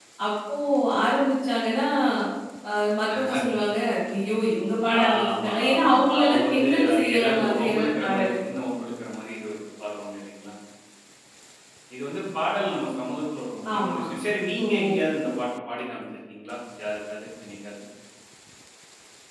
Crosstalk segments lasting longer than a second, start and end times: 5.0-8.4

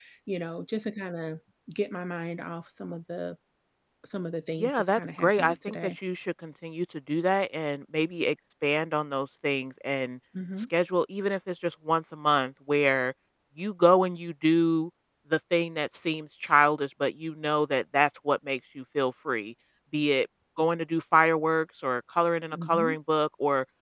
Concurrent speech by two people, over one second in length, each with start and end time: 4.6-5.9

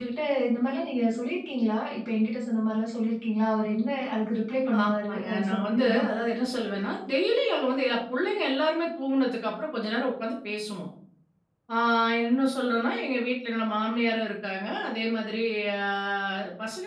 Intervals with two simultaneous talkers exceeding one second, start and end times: 4.8-6.0

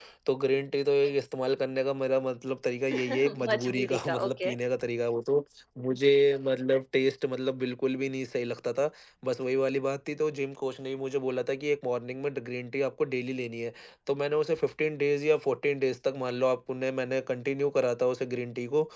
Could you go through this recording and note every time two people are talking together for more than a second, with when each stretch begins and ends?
2.9-4.5

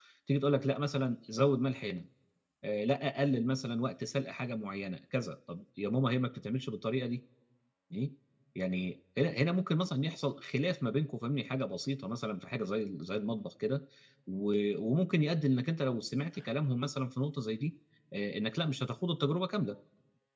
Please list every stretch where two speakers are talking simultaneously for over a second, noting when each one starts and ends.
none

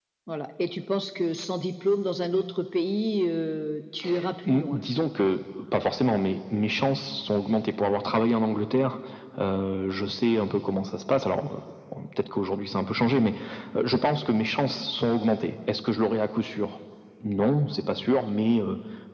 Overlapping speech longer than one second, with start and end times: none

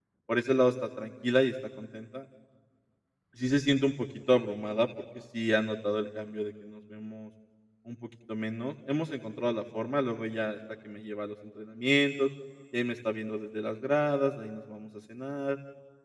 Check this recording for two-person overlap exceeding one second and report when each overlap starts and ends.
none

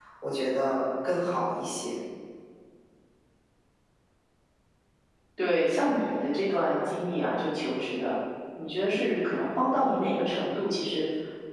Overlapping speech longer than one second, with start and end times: none

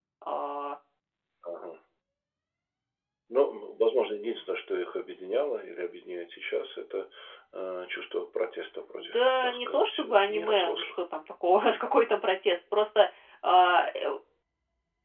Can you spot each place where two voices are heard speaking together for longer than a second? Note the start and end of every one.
9.0-10.9

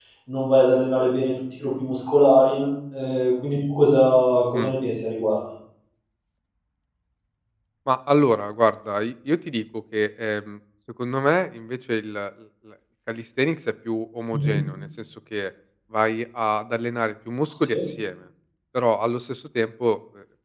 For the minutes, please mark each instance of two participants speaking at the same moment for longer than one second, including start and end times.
none

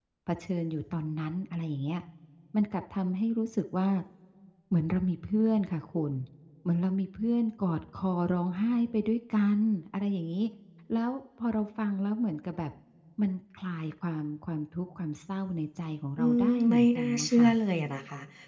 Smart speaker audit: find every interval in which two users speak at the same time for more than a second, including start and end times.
16.2-17.5

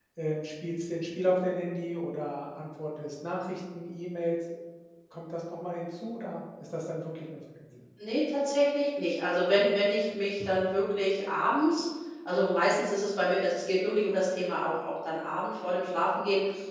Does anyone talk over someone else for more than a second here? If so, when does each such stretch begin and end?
none

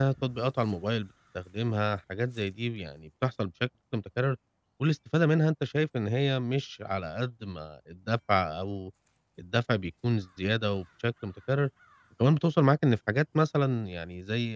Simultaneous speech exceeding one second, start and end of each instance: none

